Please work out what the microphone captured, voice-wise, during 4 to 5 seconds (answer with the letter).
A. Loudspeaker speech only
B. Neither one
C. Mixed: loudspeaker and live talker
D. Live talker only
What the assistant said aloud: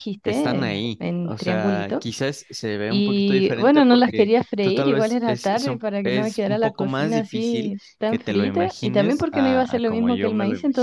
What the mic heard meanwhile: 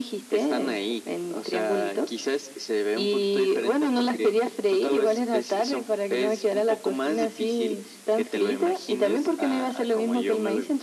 A